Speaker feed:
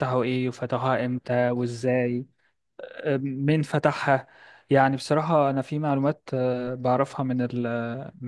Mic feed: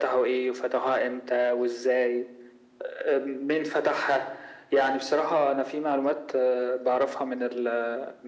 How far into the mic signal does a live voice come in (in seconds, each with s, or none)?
none